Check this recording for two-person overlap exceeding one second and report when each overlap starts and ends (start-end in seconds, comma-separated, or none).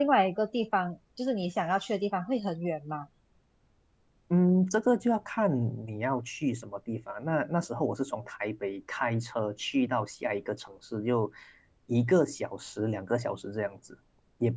none